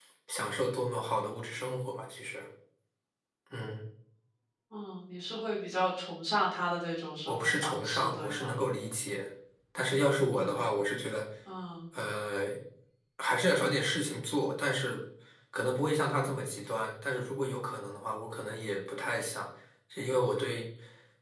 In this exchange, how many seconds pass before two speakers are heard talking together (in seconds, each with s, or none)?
7.3 s